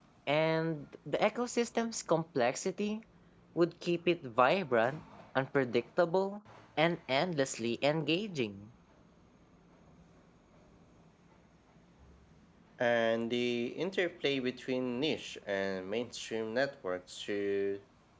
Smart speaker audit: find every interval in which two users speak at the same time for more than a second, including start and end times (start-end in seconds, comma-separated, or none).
none